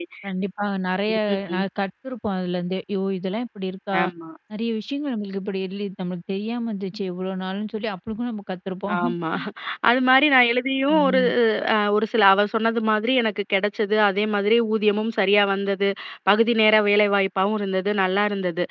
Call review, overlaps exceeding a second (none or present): none